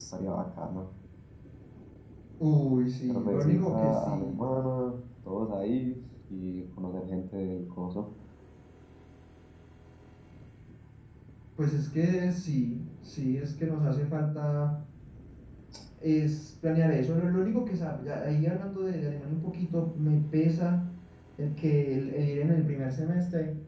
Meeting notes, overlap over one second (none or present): present